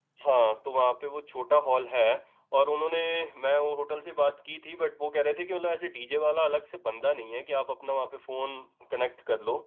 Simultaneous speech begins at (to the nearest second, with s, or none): none